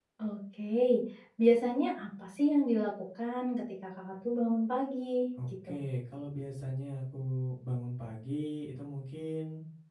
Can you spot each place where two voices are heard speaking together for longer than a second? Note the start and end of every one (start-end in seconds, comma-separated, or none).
none